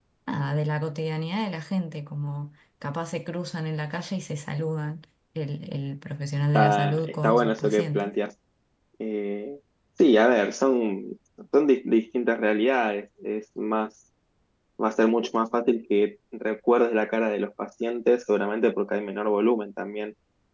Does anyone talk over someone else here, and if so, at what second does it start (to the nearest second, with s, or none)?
7 s